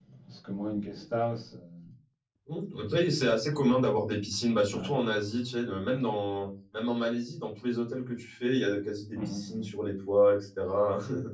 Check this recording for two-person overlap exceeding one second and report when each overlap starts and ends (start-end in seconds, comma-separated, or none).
none